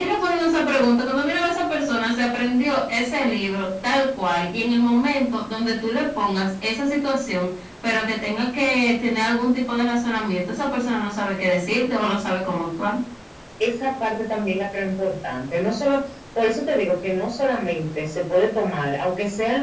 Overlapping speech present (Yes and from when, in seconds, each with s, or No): No